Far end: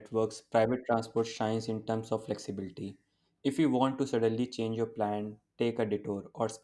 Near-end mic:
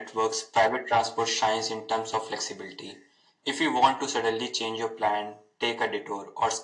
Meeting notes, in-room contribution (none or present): none